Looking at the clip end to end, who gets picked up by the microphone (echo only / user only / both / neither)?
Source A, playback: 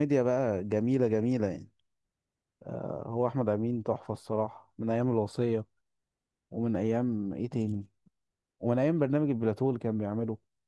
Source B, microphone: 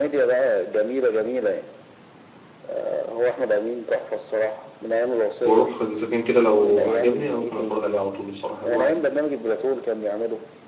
both